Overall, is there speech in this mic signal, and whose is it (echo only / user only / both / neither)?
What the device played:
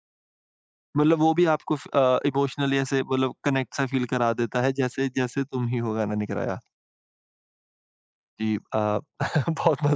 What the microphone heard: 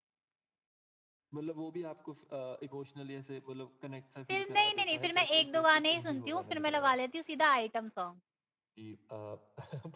both